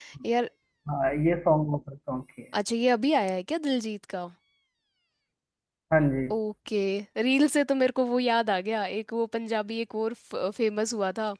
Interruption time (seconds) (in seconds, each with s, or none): none